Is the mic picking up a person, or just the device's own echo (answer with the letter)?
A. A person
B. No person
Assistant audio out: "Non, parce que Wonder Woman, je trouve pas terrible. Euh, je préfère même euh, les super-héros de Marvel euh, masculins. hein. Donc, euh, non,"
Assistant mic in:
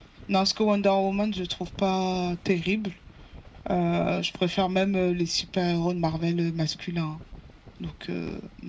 B